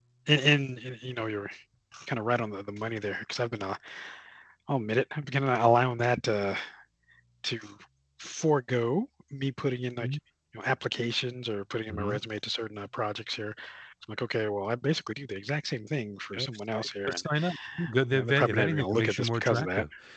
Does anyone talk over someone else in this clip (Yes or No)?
Yes